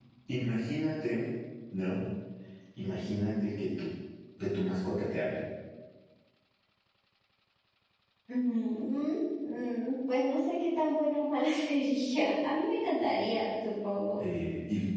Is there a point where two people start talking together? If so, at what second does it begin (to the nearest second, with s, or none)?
none